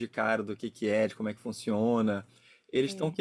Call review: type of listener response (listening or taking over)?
listening